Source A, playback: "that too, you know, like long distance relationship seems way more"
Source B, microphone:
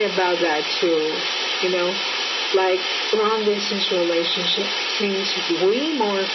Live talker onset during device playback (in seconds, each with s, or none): none